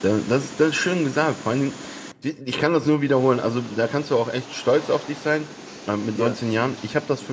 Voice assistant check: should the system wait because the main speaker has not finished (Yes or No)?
Yes